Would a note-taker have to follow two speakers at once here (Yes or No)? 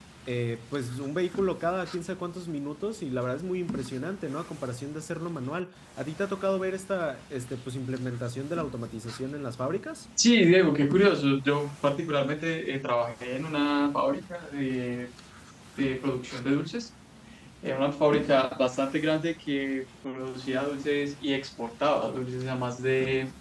No